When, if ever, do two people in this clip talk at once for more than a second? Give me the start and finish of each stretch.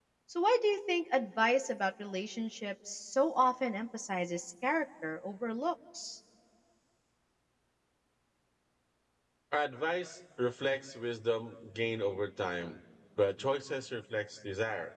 none

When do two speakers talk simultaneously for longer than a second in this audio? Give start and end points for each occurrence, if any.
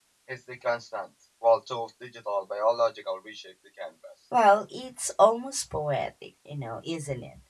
none

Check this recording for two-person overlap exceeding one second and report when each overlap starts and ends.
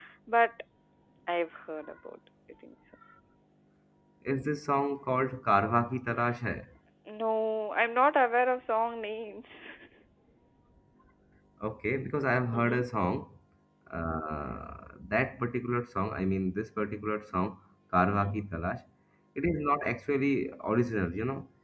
none

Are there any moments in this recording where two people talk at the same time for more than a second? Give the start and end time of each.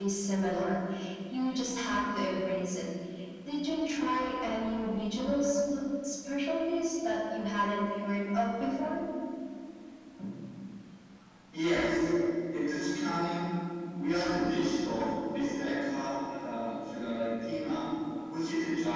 none

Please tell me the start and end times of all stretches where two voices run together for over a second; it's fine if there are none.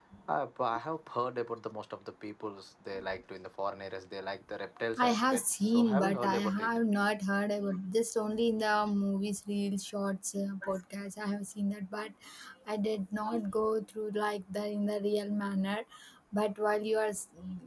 5.0-6.8

